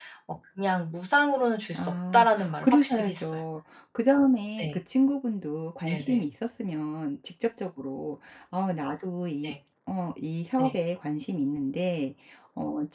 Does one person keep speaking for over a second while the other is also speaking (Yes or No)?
Yes